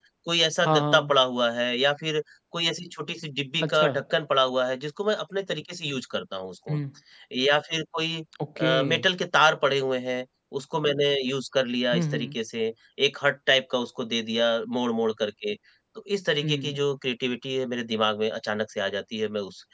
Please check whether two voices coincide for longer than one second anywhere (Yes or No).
No